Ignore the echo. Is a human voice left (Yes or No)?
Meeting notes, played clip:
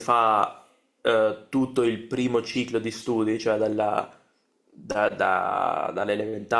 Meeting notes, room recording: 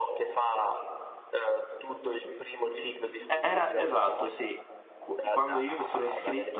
Yes